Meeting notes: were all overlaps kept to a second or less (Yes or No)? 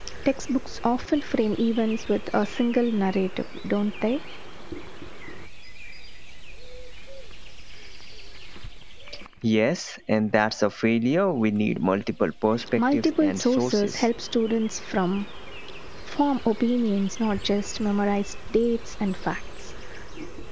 No